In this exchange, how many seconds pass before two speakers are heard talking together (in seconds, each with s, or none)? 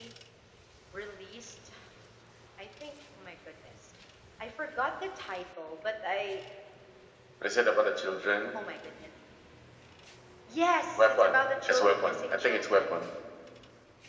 11.0 s